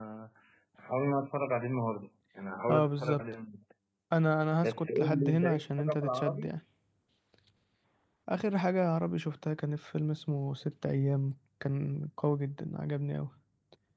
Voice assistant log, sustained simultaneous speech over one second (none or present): present